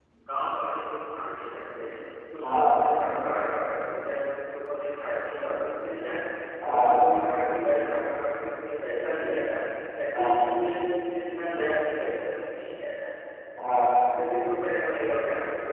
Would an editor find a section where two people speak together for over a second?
No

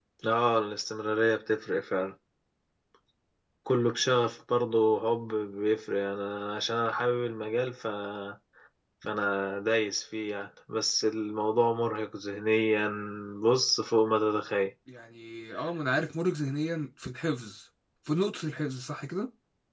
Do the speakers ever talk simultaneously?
No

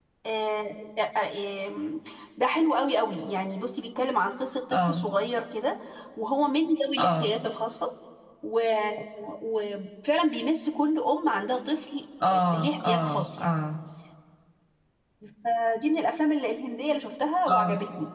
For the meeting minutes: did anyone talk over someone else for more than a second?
Yes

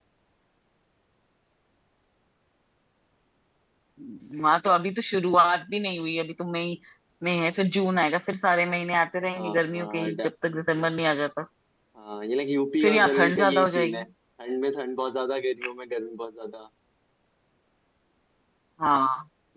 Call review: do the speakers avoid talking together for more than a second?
No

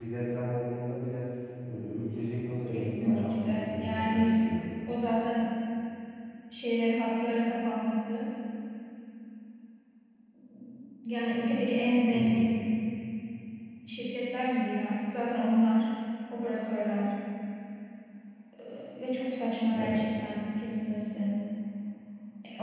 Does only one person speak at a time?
No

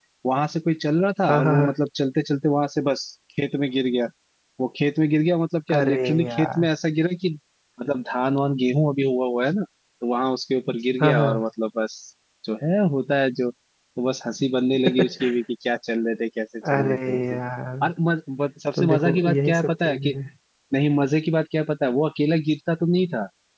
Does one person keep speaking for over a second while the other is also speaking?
Yes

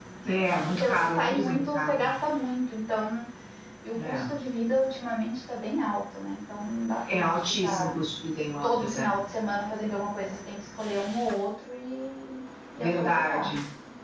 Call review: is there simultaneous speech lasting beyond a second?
Yes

